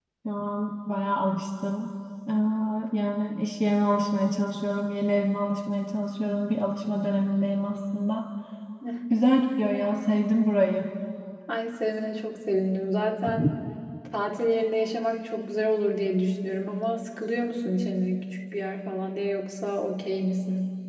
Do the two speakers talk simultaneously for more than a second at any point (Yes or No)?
No